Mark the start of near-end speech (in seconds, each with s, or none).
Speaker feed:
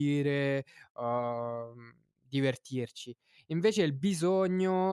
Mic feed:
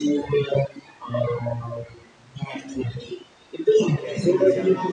3.7 s